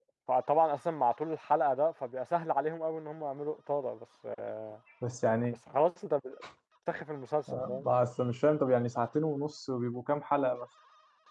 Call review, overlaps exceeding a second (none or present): none